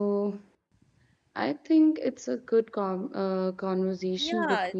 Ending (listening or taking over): taking over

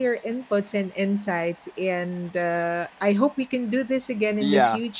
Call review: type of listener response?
taking over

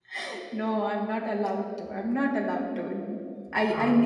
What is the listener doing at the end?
listening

